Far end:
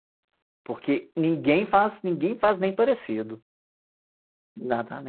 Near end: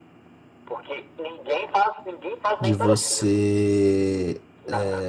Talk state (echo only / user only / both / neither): both